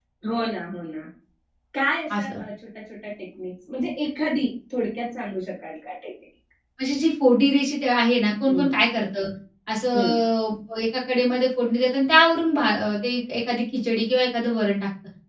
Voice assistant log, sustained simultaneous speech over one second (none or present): none